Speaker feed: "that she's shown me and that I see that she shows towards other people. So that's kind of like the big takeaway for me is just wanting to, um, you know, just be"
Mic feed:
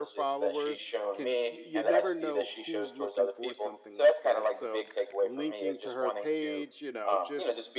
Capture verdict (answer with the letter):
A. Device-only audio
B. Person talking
B